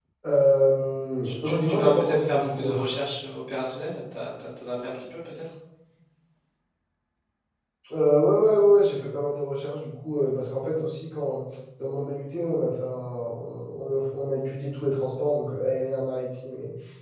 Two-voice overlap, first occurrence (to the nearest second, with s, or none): 1 s